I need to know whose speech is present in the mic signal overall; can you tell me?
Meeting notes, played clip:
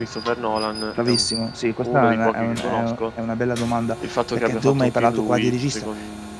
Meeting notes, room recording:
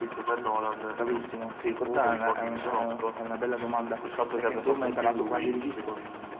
echo only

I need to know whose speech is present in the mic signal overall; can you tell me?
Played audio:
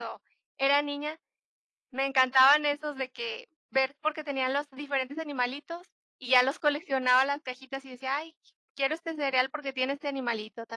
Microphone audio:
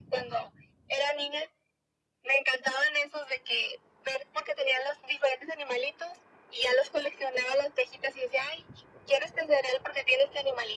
echo only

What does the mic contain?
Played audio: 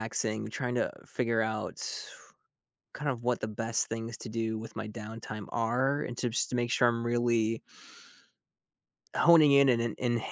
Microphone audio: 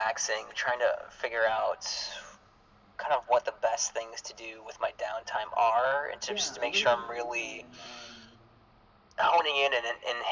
both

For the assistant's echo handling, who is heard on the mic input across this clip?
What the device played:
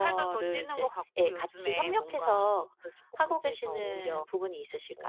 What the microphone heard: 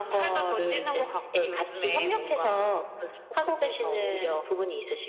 echo only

